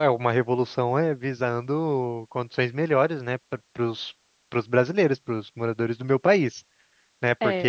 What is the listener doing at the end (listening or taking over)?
taking over